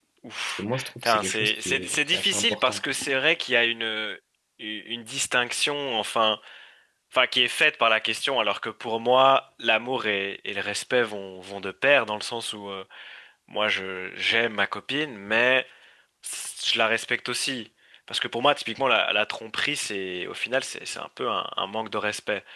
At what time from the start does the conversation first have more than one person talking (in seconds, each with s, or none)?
0.6 s